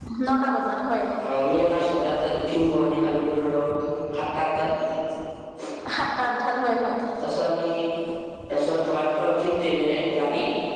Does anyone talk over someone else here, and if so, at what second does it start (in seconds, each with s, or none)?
none